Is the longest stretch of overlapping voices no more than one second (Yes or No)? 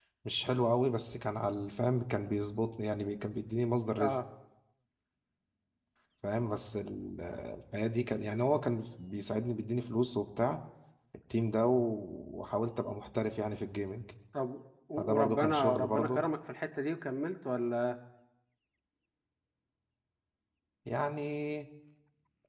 No